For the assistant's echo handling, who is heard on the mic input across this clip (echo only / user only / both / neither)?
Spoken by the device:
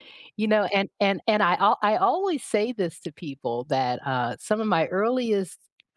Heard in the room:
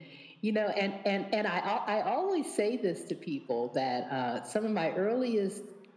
echo only